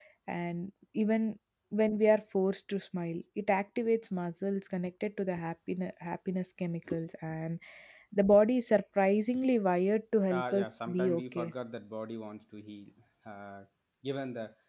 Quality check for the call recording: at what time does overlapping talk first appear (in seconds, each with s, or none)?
10.3 s